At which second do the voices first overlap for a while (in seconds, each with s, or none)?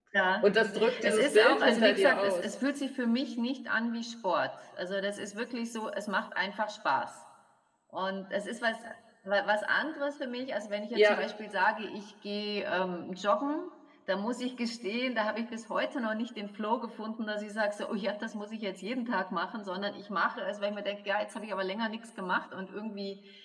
1.0 s